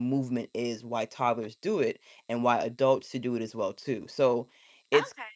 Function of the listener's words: taking over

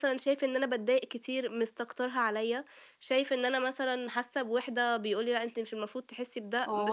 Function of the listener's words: taking over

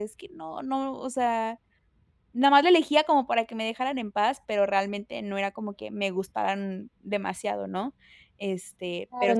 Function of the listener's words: taking over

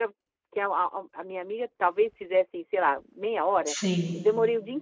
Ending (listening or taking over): listening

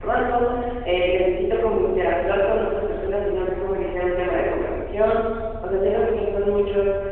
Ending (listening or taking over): listening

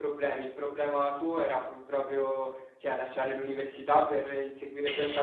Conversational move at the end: listening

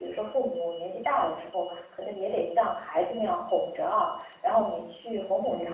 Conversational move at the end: listening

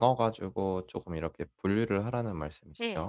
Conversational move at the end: taking over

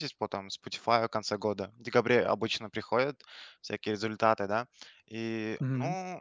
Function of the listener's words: listening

